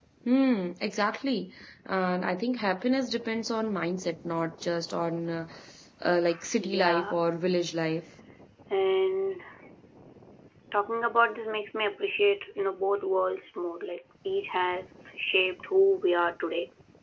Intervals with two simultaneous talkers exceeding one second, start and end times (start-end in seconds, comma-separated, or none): none